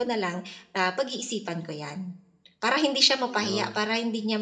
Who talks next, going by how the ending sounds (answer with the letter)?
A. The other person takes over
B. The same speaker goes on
B